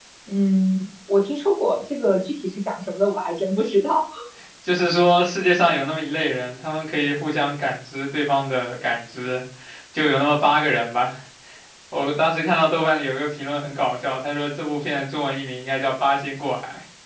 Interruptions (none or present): none